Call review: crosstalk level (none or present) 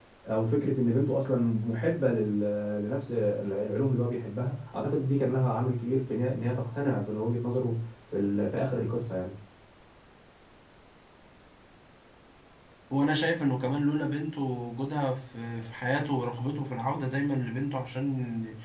none